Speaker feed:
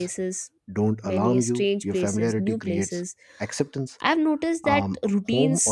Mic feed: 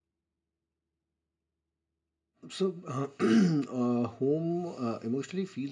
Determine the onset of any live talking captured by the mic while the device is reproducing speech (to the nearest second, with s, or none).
2 s